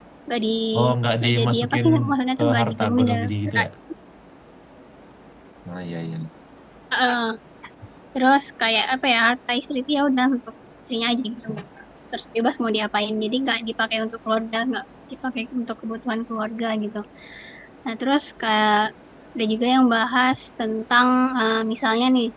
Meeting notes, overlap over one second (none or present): present